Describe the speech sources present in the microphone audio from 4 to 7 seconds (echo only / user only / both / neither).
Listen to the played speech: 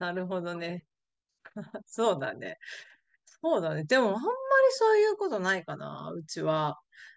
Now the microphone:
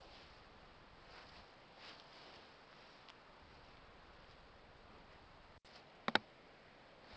neither